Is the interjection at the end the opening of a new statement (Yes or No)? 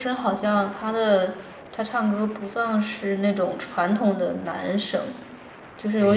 Yes